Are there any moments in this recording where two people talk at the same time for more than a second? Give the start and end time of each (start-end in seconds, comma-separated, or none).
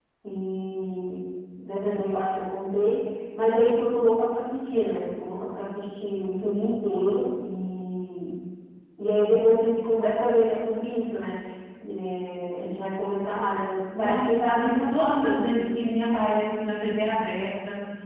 14.0-15.7